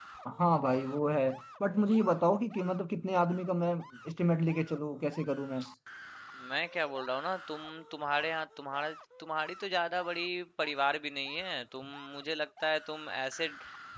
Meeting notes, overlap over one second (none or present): none